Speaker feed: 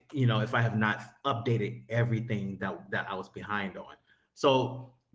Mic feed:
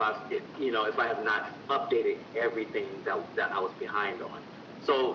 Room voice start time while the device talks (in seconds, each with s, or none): none